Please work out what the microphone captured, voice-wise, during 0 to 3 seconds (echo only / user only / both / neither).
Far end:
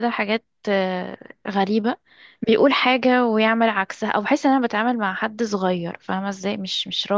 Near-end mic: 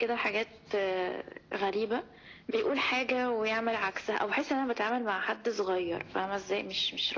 echo only